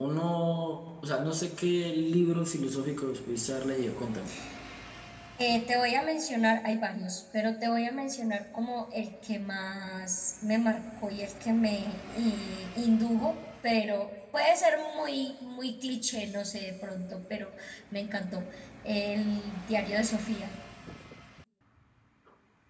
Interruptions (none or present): none